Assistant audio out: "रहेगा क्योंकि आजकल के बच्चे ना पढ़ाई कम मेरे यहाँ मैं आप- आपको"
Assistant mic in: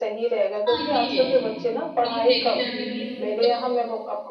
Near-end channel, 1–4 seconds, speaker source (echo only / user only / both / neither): both